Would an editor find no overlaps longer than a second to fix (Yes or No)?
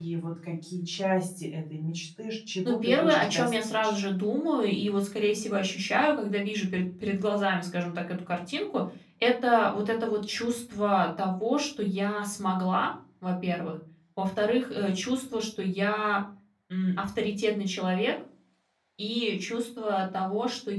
No